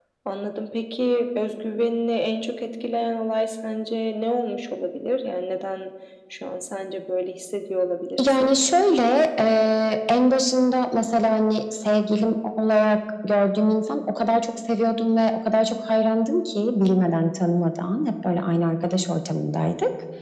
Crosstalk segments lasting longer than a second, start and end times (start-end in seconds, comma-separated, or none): none